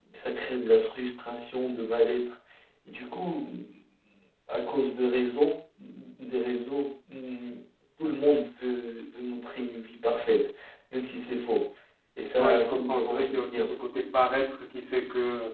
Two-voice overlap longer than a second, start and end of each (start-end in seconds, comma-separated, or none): 12.4-13.7